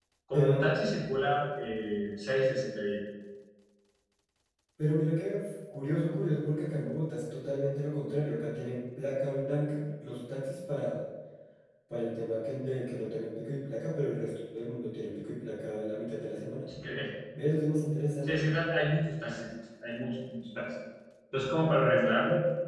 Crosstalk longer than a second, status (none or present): none